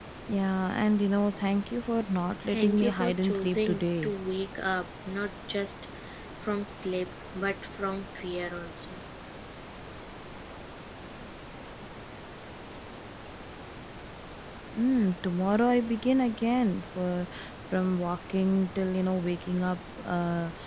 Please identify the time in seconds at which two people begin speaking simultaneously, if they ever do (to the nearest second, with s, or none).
3 s